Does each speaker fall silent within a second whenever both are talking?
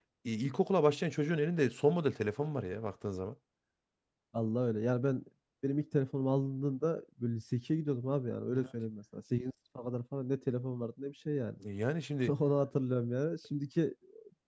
Yes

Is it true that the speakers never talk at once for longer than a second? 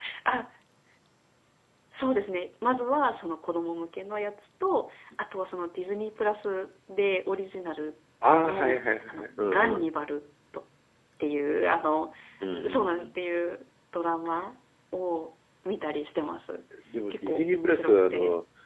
No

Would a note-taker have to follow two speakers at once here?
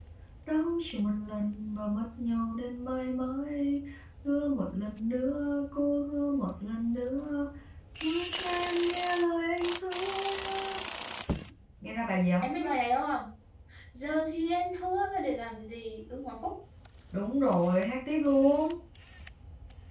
No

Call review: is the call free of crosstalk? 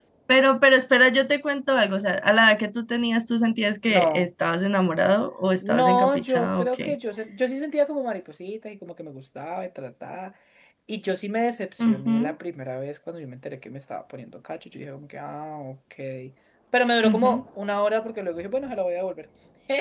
No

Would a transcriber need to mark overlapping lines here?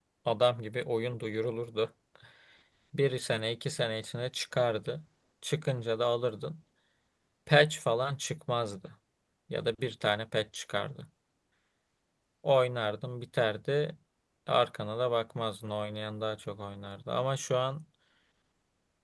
No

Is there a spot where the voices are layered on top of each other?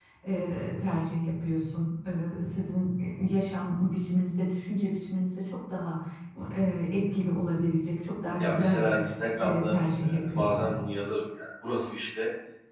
Yes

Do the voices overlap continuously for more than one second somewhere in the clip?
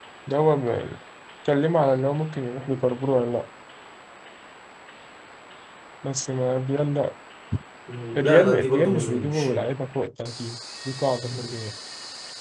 Yes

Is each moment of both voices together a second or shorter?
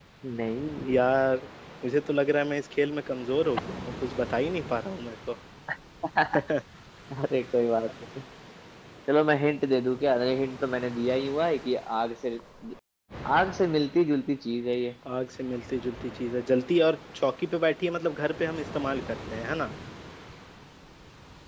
Yes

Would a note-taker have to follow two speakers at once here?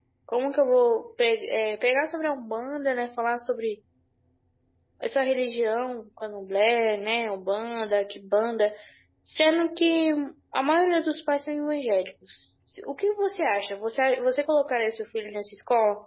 No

